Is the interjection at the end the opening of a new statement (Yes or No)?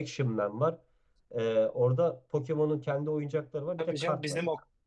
Yes